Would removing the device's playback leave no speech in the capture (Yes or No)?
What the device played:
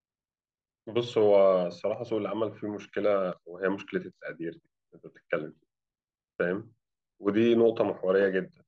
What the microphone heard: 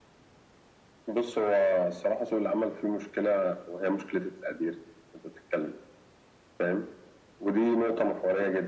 Yes